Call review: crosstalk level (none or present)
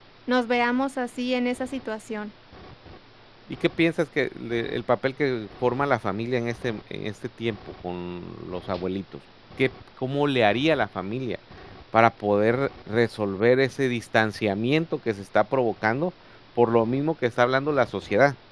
none